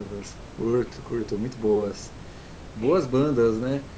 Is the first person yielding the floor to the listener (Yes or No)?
No